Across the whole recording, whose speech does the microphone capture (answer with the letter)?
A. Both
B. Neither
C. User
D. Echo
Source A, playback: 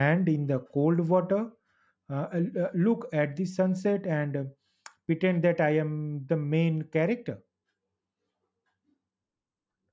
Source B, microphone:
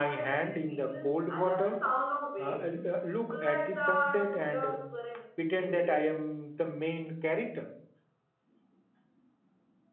A